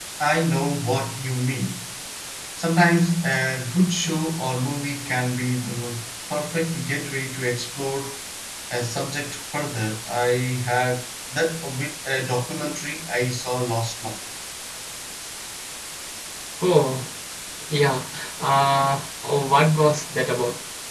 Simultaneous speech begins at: none

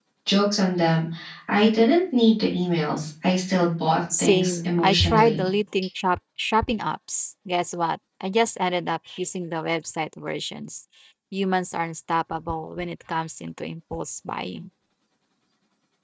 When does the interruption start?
4.1 s

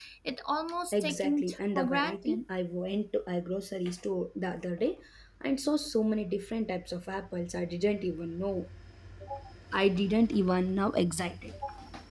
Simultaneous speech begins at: 1.0 s

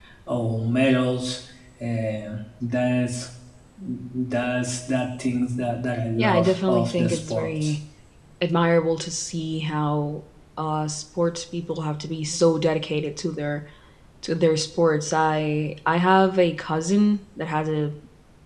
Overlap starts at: 6.2 s

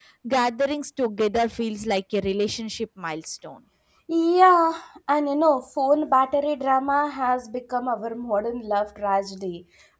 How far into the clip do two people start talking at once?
none

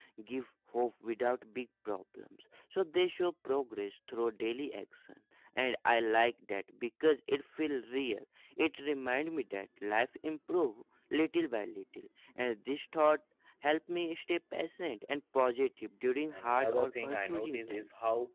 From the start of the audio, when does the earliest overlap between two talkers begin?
16.3 s

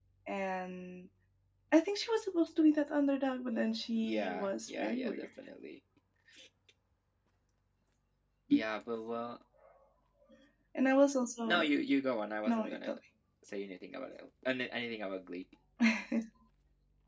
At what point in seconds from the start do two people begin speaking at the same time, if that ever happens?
4.0 s

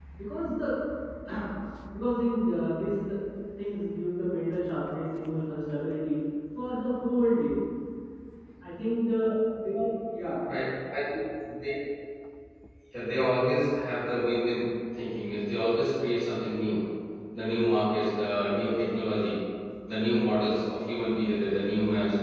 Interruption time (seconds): none

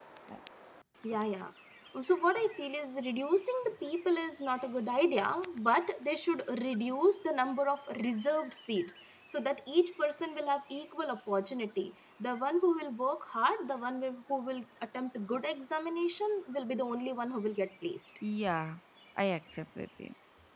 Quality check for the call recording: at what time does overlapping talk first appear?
none

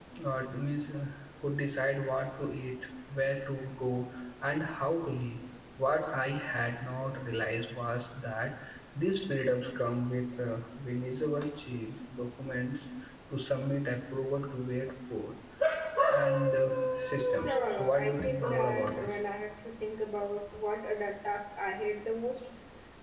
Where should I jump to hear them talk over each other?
17.4 s

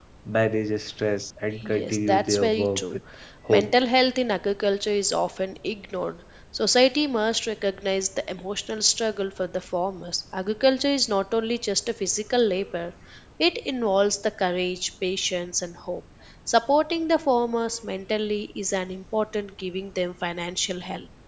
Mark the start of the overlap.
1.6 s

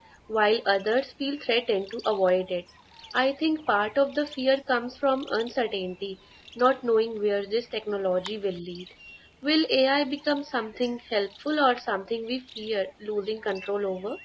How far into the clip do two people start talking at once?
none

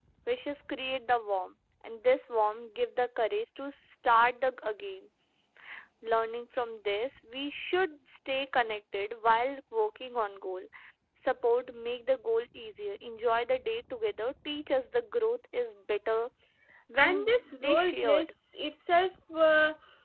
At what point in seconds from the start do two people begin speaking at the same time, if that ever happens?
17.0 s

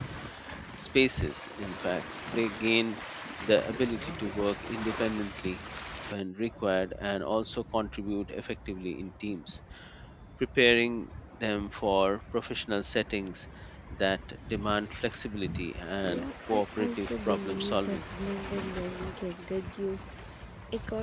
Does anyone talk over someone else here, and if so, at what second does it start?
16.0 s

